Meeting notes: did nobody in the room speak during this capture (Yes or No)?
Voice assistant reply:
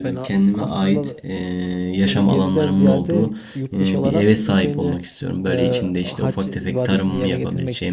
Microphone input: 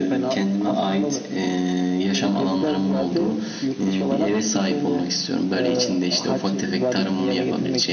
Yes